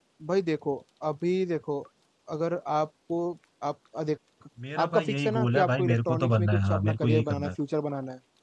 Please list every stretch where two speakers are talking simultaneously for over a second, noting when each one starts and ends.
4.8-7.5

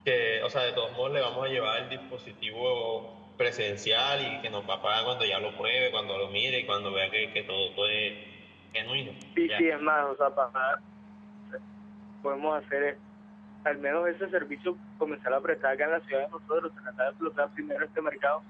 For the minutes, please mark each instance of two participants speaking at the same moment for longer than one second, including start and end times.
none

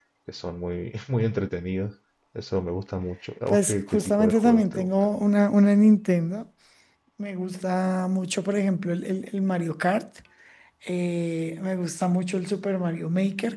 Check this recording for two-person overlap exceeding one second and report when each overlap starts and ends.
3.5-4.9

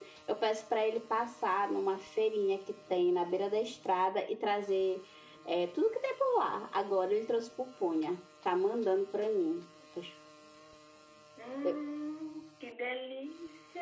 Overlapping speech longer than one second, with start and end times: none

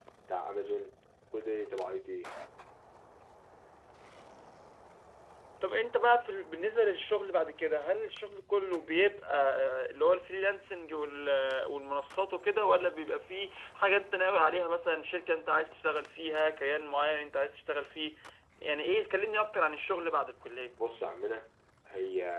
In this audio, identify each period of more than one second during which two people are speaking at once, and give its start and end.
none

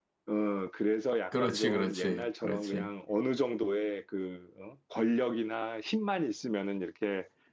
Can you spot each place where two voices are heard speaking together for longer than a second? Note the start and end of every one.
1.3-2.9

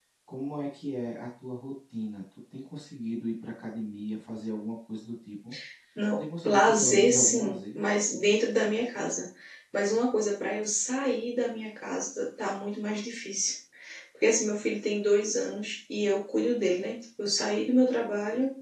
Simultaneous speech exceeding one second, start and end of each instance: 6.2-7.8

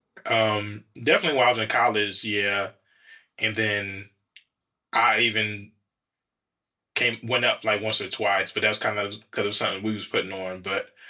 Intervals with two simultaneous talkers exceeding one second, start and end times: none

